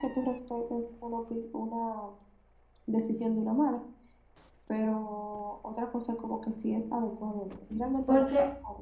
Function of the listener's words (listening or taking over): taking over